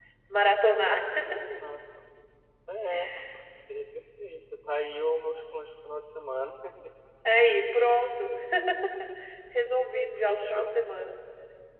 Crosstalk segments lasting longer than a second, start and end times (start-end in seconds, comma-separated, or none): none